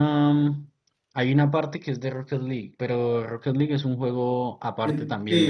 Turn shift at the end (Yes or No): Yes